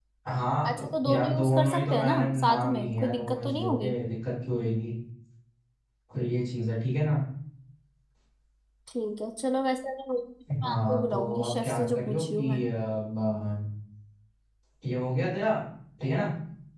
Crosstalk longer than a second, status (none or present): present